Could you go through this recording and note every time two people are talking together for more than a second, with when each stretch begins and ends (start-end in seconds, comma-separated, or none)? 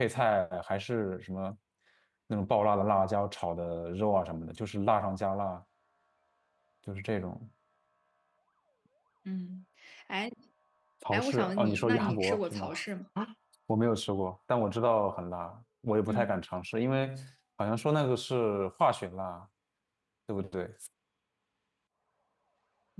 11.1-12.7